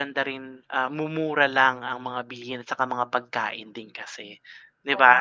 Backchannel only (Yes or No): No